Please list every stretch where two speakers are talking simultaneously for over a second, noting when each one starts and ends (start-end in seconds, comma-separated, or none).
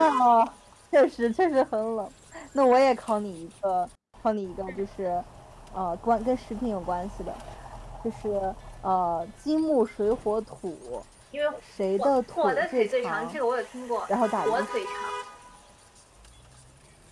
12.0-13.4